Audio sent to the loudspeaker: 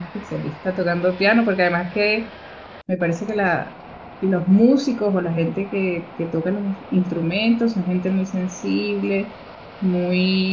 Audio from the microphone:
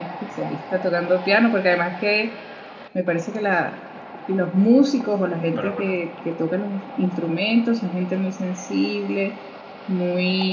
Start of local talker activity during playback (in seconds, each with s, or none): 5.5 s